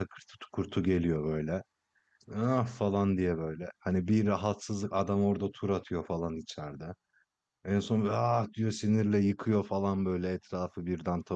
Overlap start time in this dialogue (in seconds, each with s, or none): none